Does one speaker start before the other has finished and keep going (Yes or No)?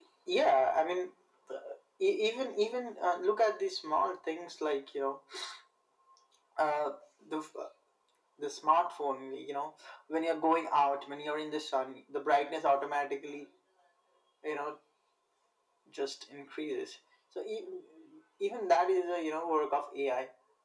No